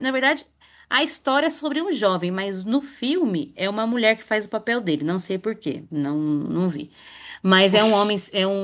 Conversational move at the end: listening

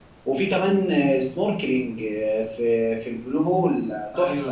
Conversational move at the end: taking over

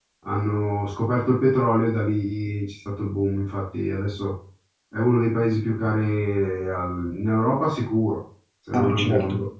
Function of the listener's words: taking over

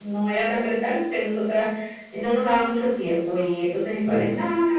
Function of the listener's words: listening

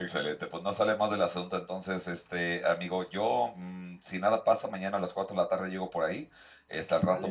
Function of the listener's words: listening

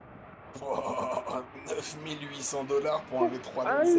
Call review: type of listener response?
taking over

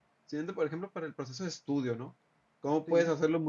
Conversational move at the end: listening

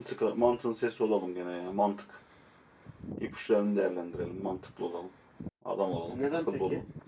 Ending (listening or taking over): taking over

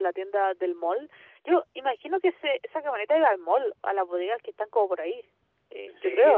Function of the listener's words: taking over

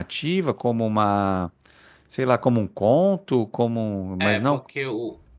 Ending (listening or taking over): taking over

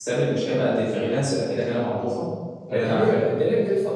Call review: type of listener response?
taking over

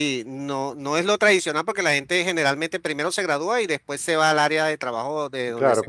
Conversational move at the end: taking over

